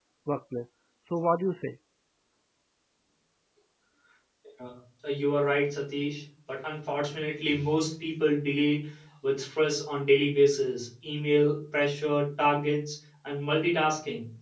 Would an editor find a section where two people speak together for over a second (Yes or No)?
No